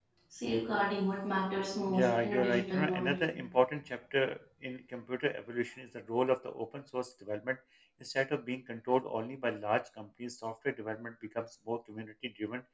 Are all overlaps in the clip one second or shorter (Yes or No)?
No